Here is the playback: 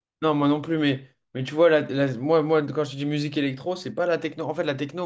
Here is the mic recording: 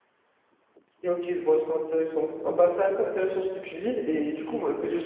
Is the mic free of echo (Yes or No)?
Yes